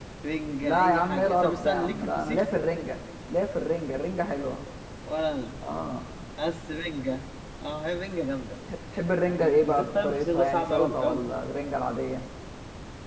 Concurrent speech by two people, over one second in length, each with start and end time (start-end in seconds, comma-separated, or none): 0.6-2.5, 9.2-11.2